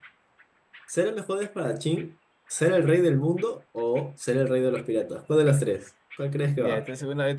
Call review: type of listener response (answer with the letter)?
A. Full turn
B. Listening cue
A